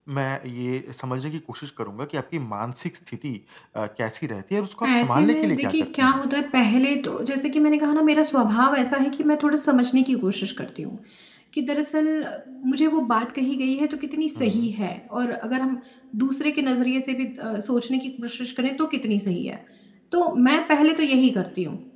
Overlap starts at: 4.9 s

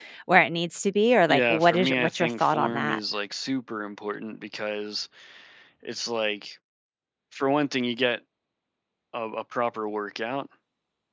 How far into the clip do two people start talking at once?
1.3 s

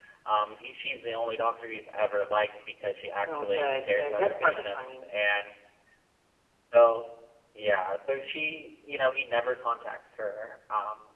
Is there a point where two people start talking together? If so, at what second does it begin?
3.2 s

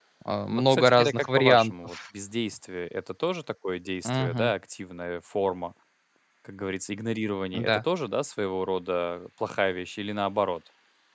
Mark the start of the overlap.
0.5 s

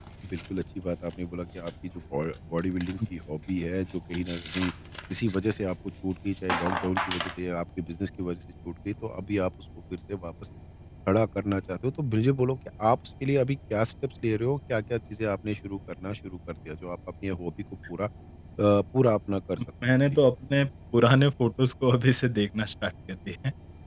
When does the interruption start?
none

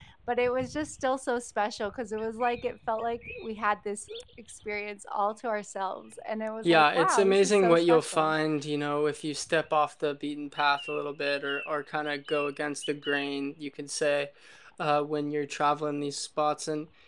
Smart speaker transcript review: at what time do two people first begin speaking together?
6.6 s

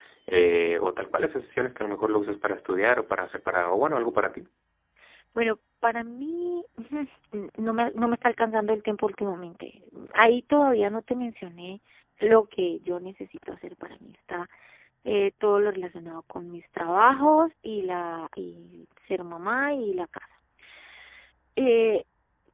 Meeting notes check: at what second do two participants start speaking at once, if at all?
none

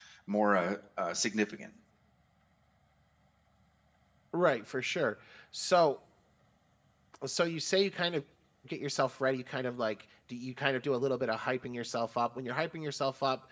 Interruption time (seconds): none

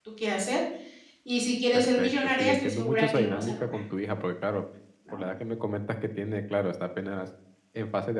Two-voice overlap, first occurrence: 1.7 s

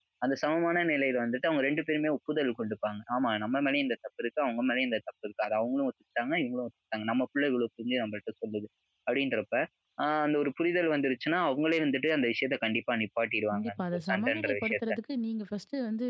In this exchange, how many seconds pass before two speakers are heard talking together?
13.5 s

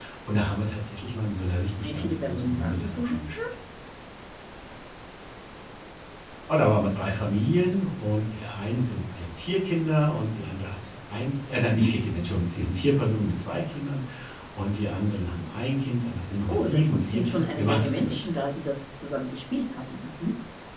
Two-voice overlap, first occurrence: 1.8 s

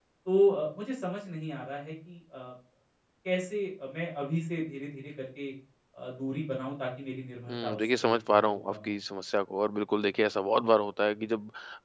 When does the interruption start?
7.5 s

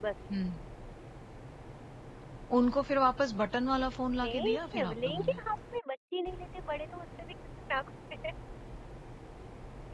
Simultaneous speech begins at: 4.2 s

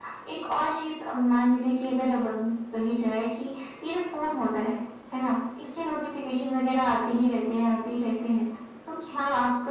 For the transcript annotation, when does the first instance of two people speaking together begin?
none

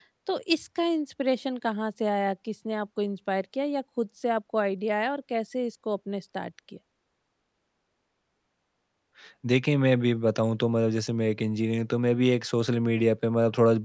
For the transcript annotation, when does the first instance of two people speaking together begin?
none

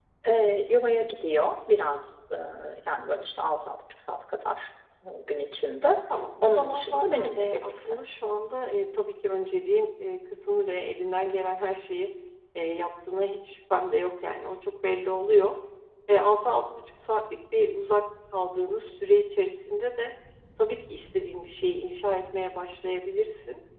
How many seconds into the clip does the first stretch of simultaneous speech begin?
6.4 s

